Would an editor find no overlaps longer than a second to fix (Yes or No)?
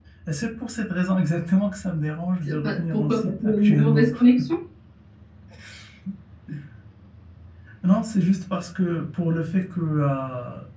No